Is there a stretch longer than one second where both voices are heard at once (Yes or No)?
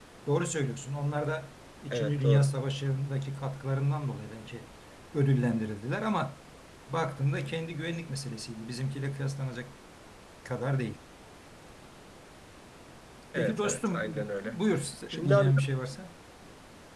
Yes